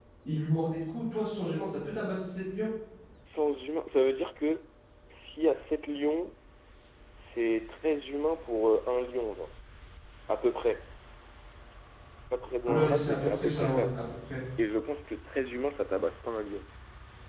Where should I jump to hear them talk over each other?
13 s

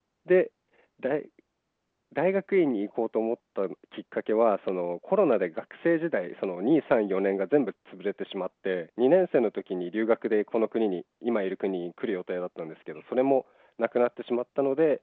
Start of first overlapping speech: none

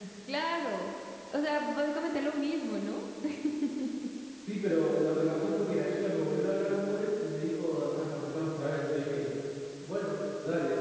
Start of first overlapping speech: none

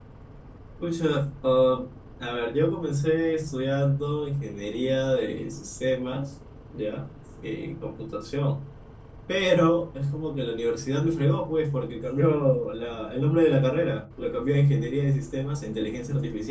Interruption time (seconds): none

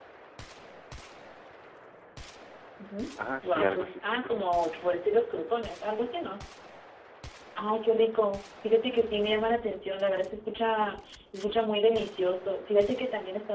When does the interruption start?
3 s

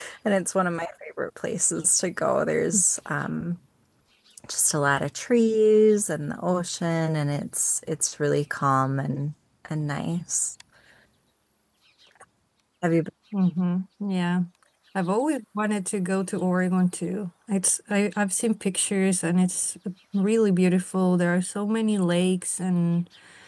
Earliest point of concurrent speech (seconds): none

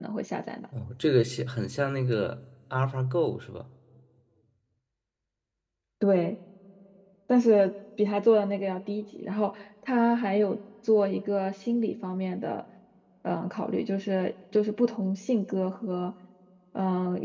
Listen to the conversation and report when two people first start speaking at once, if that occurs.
none

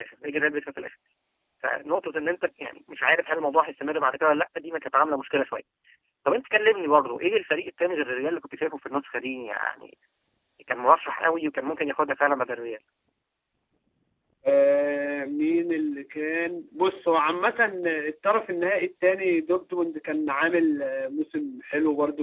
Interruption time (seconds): none

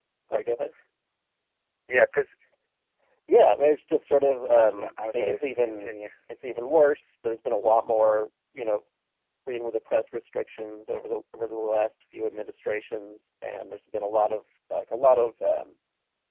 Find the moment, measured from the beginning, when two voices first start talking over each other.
5 s

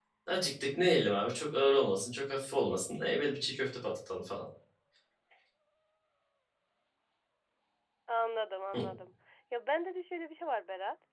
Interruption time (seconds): none

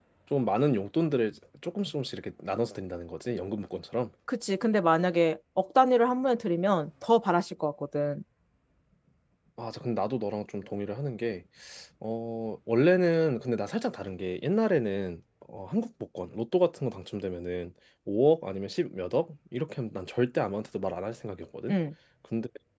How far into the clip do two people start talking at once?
none

